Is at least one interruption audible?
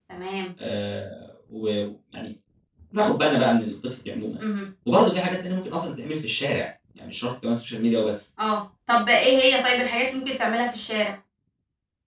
No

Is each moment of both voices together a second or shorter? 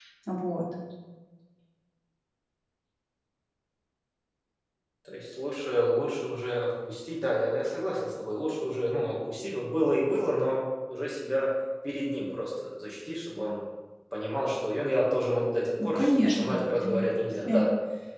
No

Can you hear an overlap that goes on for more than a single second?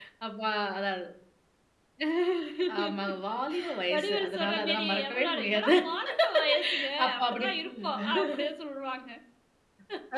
Yes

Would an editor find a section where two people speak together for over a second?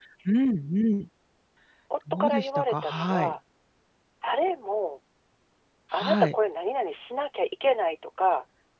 Yes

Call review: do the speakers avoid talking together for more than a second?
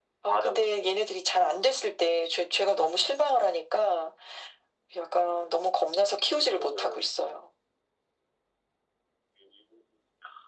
Yes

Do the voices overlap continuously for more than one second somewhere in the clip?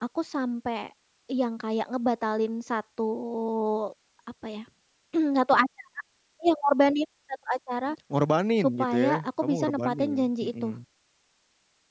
Yes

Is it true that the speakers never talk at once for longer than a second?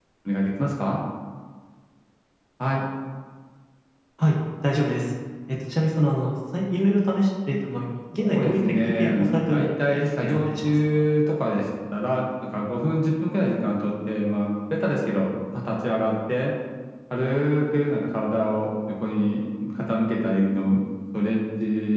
No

